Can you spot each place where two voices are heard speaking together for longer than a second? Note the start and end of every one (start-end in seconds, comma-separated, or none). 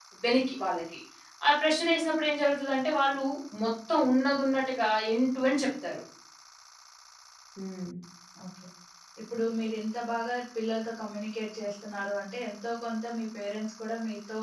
none